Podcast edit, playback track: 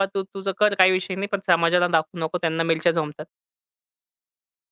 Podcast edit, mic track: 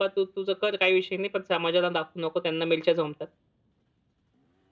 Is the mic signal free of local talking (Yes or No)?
Yes